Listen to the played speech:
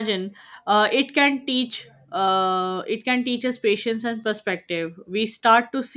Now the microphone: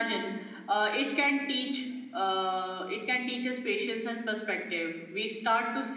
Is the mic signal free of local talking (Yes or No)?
Yes